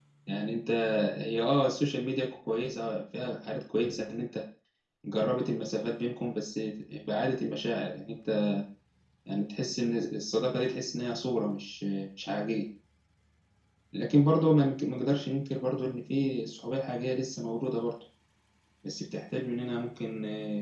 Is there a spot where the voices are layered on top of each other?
No

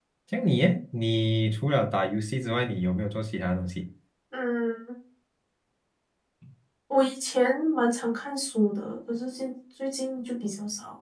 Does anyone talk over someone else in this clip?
No

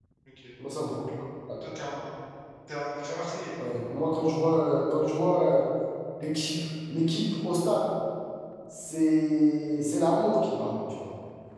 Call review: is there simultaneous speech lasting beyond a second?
No

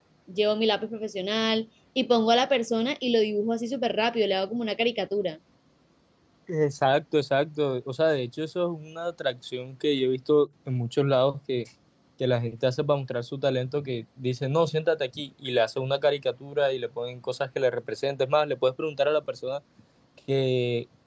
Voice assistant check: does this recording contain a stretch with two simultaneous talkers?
No

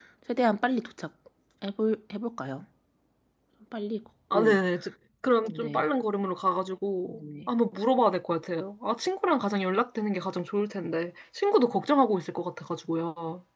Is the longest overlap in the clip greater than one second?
No

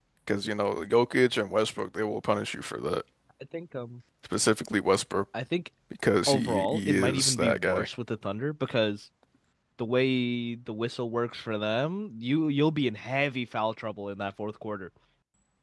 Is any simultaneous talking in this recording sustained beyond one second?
Yes, from 6.3 s

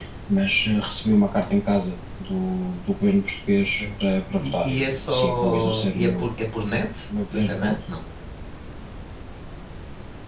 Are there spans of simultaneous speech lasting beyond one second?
Yes, from 4.4 s

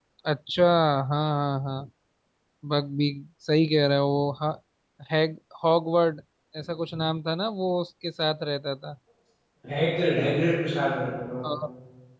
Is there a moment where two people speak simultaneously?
No

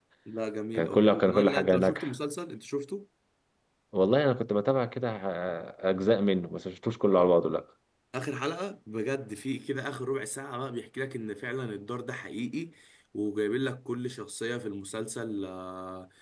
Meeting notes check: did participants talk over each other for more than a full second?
Yes, from 0.8 s

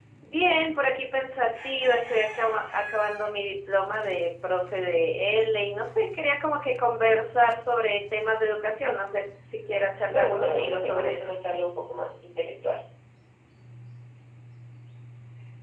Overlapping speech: Yes, from 10.1 s

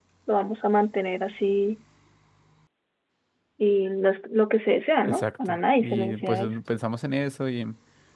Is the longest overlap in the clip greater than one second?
Yes, from 5.0 s

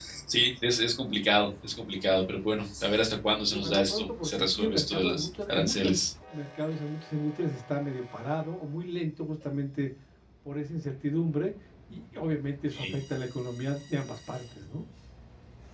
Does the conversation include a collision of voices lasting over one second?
Yes, from 3.5 s

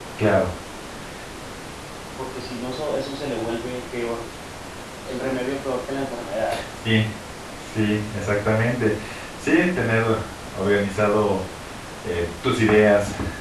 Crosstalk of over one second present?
No

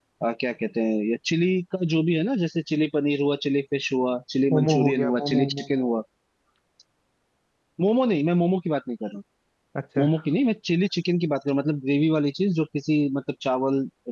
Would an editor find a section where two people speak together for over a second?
Yes, from 4.5 s

